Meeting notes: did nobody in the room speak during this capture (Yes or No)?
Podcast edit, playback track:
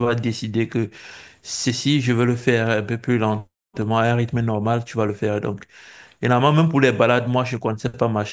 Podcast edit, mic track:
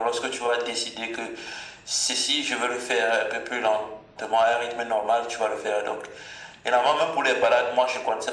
Yes